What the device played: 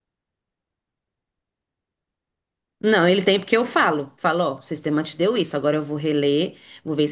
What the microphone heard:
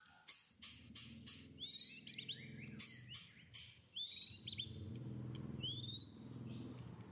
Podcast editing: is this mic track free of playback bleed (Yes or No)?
Yes